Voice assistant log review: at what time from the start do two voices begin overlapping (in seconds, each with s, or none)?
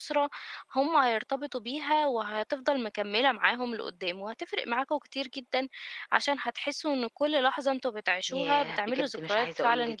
8.3 s